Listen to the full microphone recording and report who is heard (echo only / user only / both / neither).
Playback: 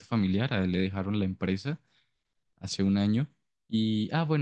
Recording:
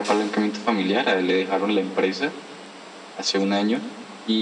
echo only